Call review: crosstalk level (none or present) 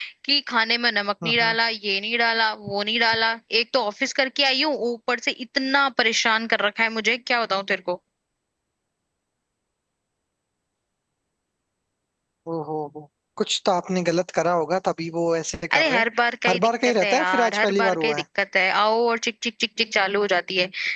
present